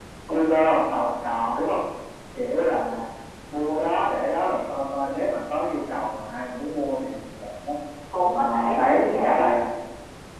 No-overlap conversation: No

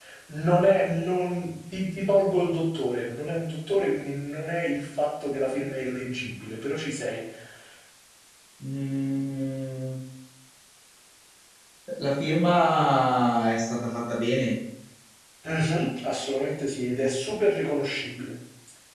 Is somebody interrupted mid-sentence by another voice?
No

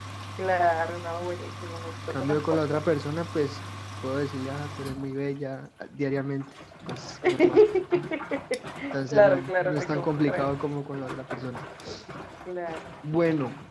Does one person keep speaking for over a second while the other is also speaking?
Yes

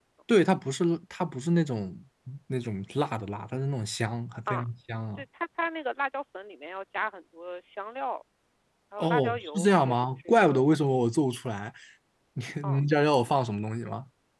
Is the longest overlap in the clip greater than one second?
Yes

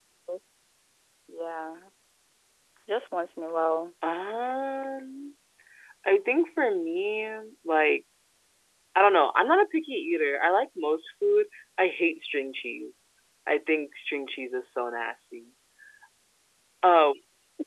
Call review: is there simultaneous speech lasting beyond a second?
No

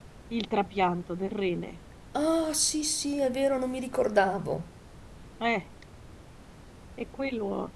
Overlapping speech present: No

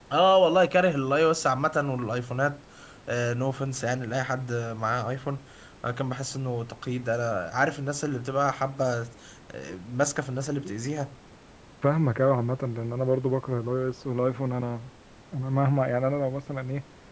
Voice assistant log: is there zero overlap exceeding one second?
Yes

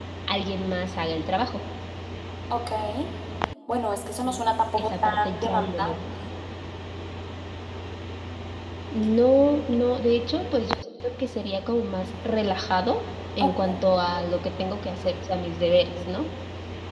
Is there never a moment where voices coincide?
No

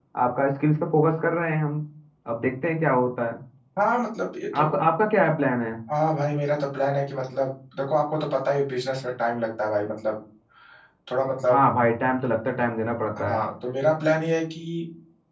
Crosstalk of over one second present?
No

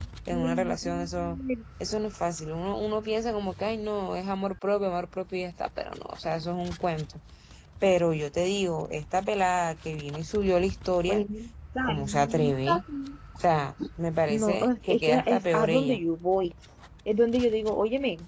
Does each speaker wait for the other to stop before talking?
No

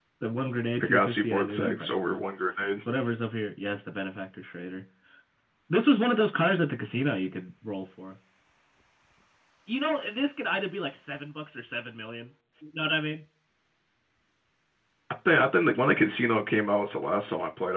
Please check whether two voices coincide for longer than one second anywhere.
Yes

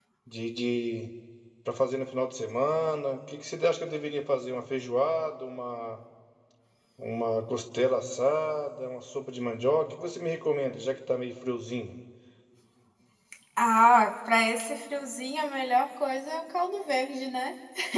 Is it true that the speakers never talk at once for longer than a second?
Yes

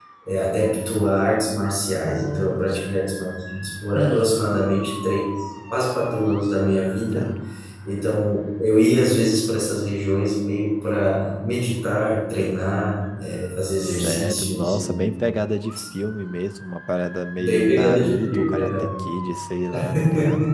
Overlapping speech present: Yes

